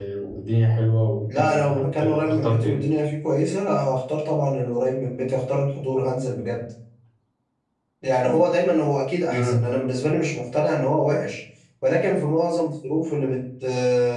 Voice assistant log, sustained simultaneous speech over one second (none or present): present